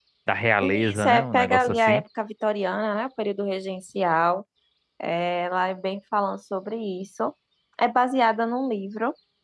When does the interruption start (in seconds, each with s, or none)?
0.6 s